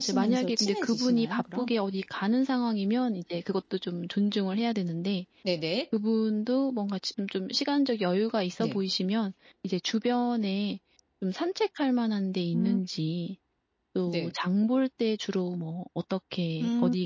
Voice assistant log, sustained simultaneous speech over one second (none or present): present